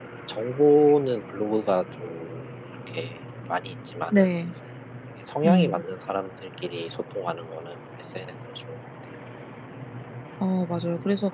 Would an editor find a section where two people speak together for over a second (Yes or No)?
No